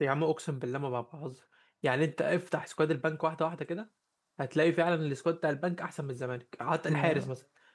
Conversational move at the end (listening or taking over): listening